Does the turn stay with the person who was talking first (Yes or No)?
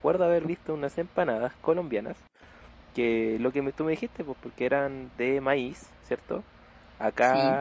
Yes